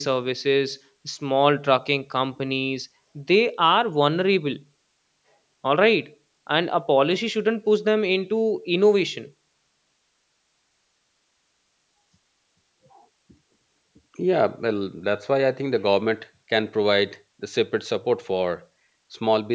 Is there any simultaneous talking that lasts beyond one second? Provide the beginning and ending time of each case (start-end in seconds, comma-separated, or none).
none